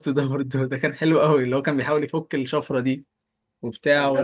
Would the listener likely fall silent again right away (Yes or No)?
No